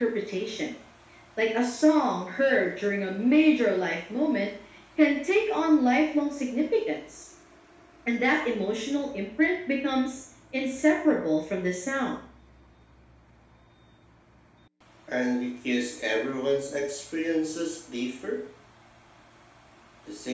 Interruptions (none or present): none